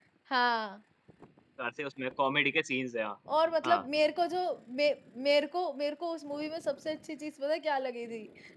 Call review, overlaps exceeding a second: none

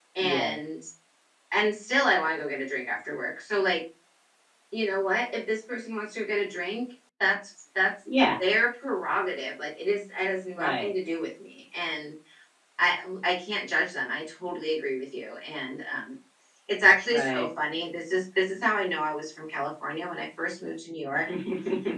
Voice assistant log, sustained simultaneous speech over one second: none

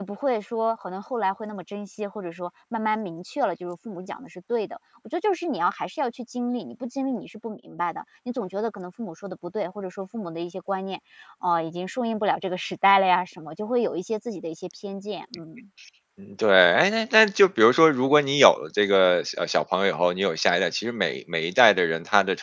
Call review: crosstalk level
none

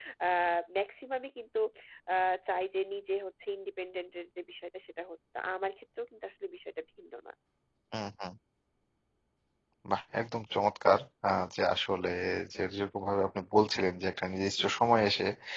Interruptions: none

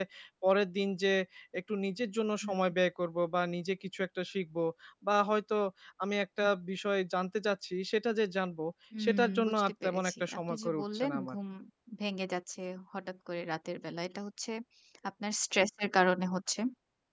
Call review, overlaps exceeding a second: present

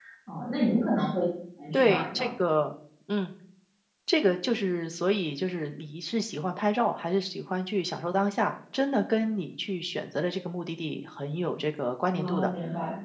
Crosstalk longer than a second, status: none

